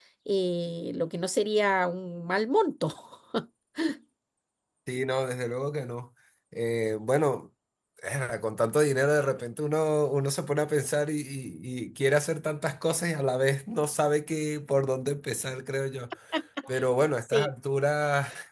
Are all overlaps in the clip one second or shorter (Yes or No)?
Yes